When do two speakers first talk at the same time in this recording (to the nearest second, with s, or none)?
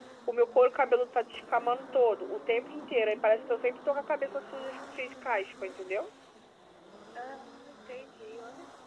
none